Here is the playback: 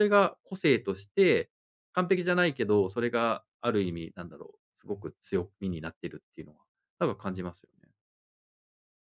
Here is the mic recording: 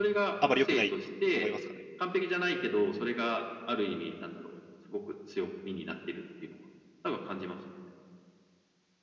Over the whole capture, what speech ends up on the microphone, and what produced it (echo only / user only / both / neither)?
both